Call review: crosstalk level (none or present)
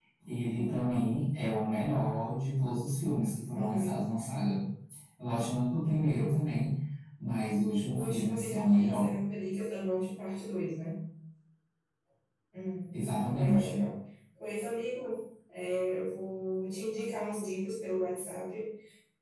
present